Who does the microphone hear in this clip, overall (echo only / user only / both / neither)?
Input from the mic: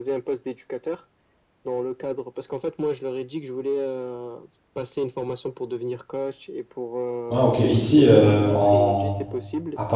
both